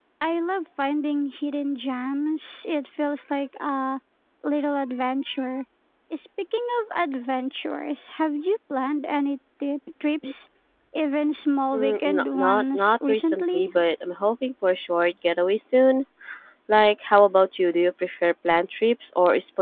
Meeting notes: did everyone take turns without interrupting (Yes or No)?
No